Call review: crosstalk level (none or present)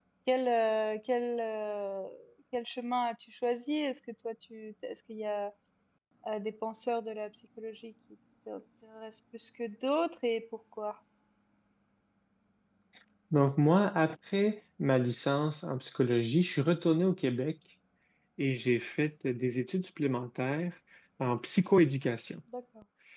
none